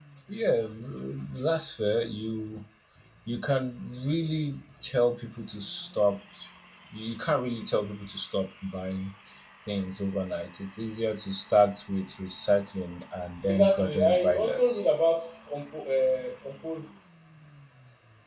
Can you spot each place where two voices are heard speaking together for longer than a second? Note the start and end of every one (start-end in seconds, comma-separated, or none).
13.5-14.8